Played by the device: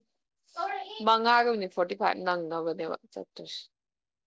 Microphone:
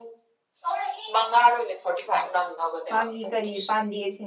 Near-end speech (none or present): present